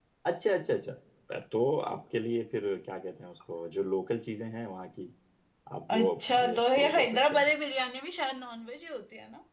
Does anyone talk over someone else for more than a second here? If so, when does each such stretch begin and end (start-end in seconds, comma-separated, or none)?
5.9-7.5